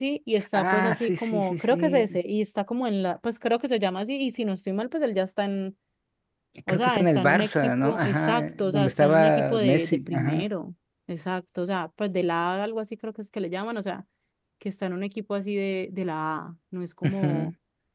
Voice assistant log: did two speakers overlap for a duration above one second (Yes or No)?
Yes